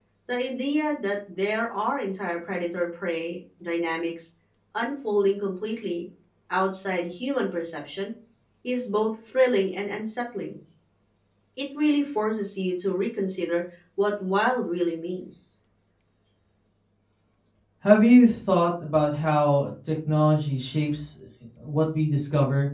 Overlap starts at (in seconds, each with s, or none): none